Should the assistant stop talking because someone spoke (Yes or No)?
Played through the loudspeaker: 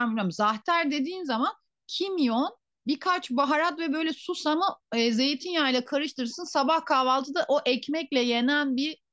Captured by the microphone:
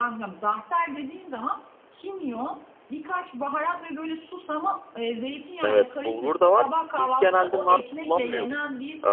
Yes